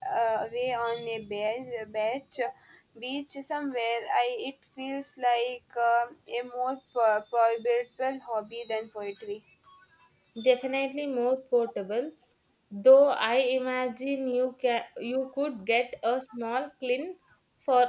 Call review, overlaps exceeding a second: none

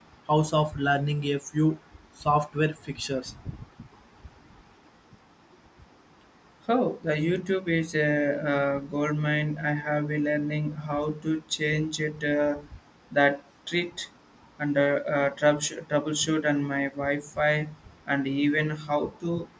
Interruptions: none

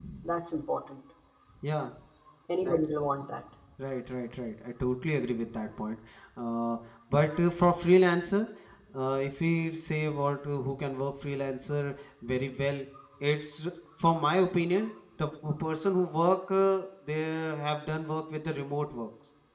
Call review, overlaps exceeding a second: none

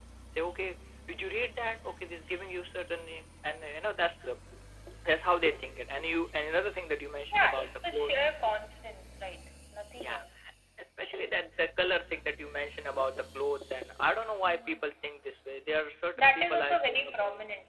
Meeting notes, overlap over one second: present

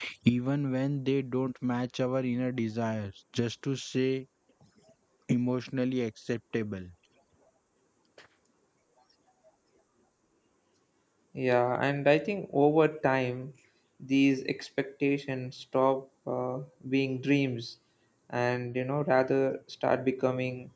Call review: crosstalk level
none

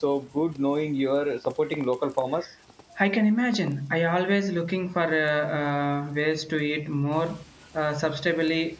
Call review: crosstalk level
none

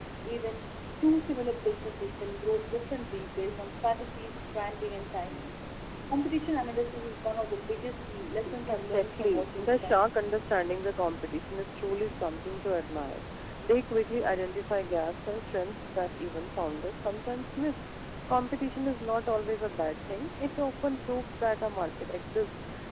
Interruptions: present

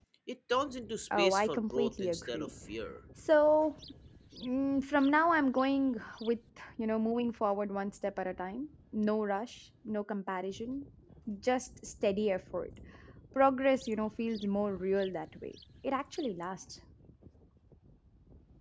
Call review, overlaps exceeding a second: present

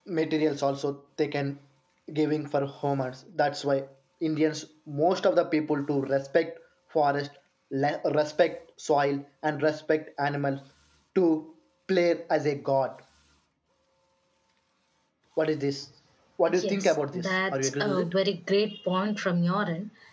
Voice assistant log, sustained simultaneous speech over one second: present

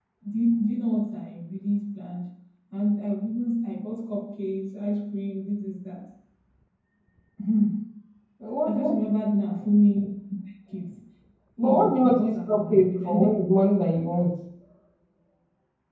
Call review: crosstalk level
present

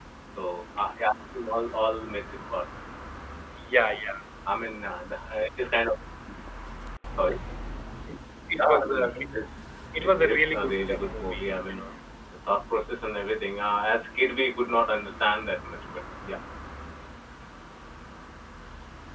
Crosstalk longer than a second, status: present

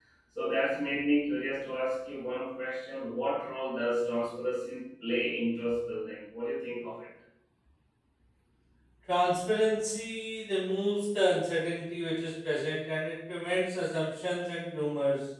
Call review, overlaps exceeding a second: none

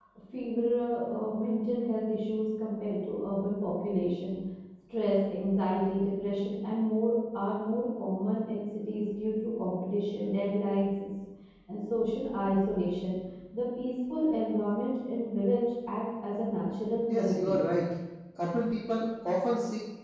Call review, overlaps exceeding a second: none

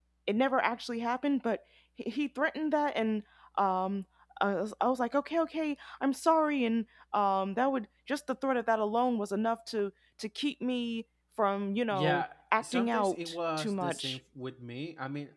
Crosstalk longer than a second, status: present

